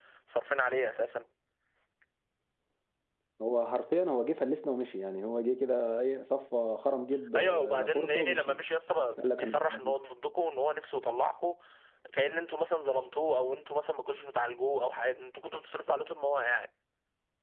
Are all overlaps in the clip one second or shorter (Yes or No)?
No